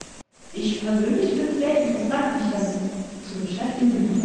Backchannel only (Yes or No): Yes